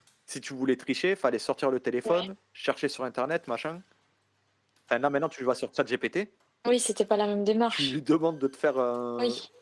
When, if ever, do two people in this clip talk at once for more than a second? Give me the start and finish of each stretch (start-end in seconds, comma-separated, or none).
none